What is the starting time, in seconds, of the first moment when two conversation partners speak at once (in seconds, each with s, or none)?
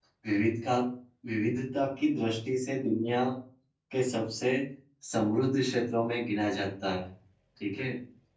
none